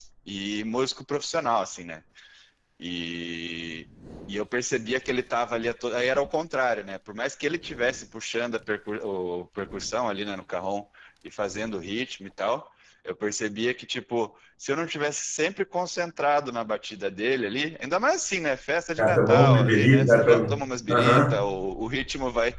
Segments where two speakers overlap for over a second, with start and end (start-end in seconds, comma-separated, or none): 19.0-20.5